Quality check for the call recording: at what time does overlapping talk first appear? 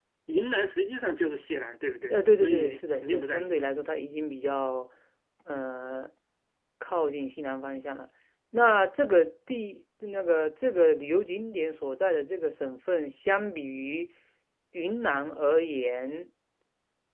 2.1 s

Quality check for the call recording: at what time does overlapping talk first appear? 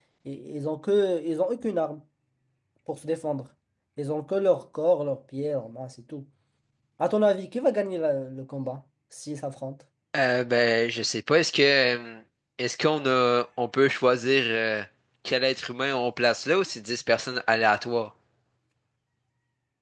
none

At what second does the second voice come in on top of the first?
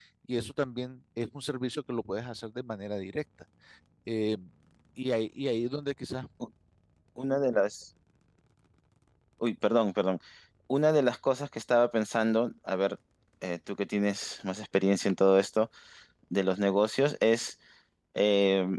none

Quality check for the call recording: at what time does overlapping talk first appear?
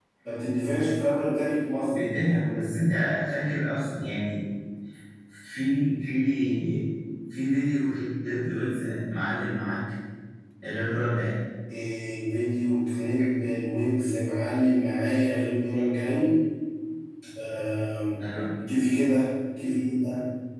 none

